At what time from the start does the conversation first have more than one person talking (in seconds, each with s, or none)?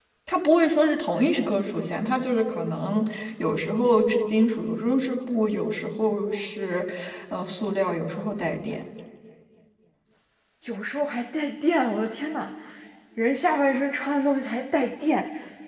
none